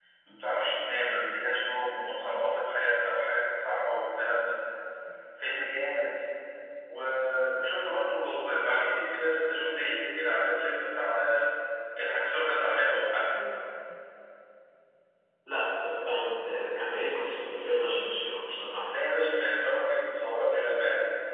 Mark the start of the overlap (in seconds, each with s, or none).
none